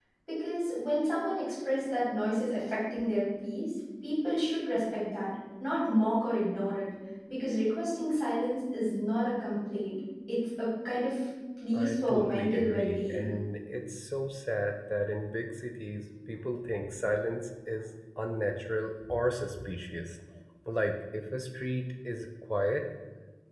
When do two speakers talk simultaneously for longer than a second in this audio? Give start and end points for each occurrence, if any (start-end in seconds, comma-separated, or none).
11.7-13.3